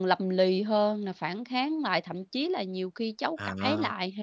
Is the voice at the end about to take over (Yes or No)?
No